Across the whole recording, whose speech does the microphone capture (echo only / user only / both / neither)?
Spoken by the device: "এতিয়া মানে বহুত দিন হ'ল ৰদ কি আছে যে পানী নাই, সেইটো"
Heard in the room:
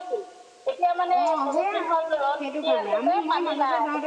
both